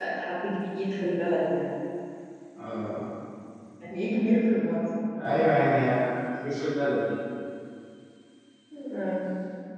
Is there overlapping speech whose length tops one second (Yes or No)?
No